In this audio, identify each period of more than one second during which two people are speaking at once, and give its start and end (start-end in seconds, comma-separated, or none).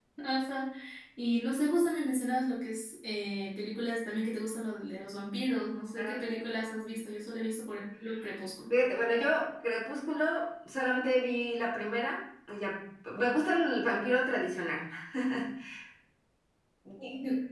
none